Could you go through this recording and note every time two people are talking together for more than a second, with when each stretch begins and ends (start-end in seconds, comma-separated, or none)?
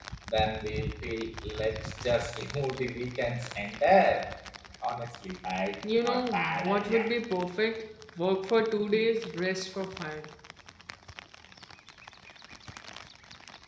5.8-7.1